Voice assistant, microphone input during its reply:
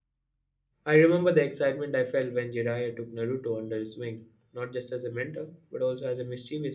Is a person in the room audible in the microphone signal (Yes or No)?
Yes